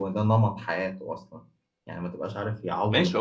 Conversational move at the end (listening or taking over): taking over